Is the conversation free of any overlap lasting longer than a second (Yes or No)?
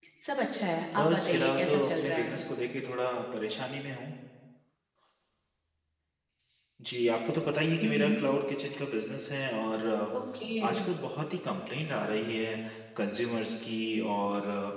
No